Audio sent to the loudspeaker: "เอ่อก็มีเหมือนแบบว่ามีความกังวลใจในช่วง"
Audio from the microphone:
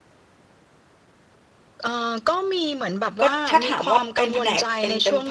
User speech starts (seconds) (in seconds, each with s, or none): 3.2 s